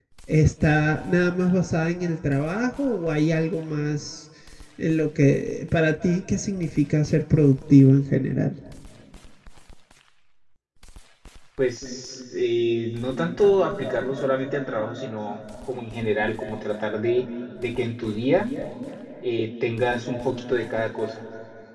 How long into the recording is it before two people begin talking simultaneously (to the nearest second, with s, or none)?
none